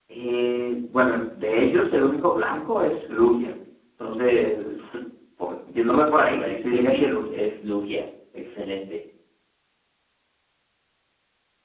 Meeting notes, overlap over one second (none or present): present